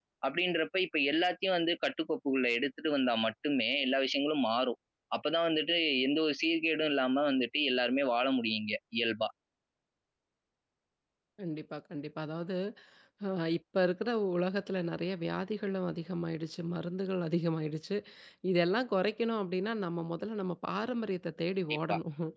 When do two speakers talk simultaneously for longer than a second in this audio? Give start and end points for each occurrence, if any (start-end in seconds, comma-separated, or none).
none